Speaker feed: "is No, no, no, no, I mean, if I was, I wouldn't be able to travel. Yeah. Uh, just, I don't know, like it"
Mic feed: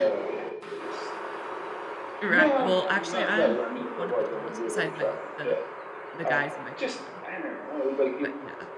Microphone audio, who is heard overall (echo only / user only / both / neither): both